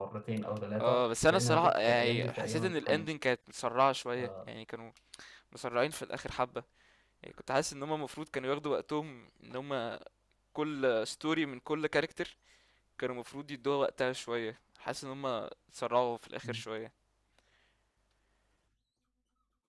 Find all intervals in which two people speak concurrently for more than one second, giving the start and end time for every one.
0.8-3.1

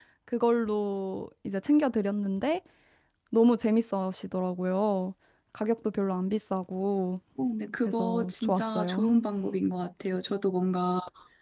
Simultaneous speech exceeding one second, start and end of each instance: 7.8-9.0

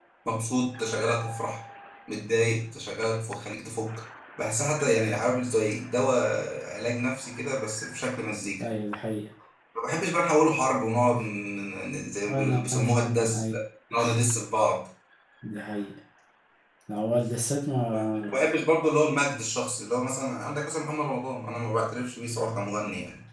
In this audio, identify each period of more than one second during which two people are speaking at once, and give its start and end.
12.2-13.5

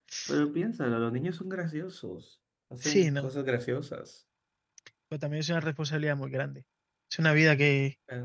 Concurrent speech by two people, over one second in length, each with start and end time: none

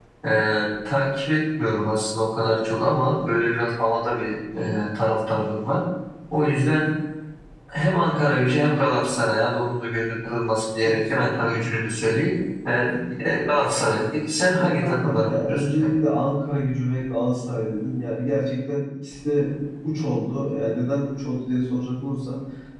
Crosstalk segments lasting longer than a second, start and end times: 14.6-15.9

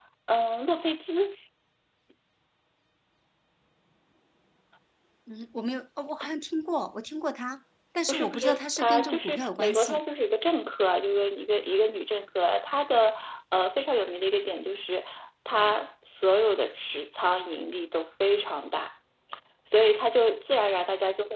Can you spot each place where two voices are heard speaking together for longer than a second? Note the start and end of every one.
8.1-10.0

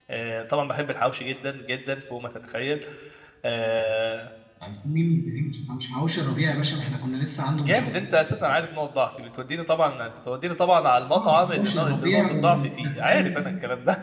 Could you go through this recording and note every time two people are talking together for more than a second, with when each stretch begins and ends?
11.1-13.4

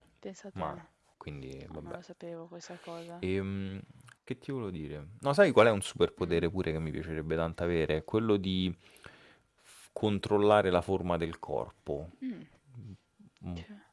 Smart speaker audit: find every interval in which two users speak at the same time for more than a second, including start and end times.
none

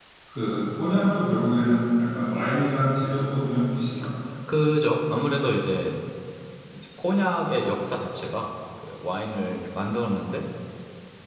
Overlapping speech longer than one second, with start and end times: none

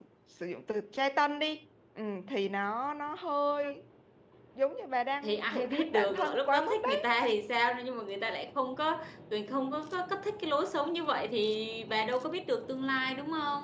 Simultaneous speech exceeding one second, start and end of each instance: 5.2-7.2

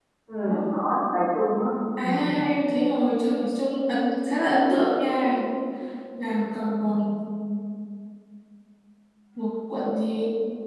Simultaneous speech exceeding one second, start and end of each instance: none

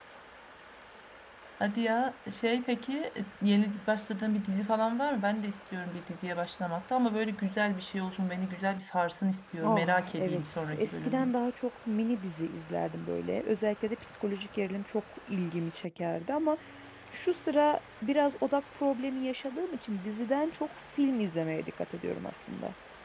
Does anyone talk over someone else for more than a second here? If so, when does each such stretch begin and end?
9.6-11.3

